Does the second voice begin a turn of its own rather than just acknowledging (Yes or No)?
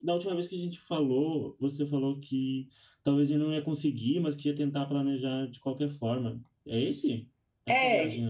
Yes